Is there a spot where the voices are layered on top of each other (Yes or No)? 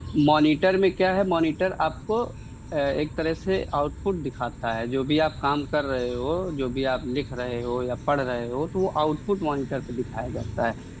No